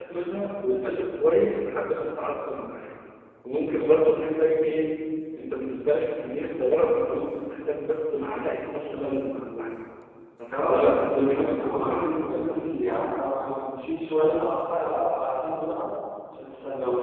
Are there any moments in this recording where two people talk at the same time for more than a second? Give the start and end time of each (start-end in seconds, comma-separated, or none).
10.5-12.6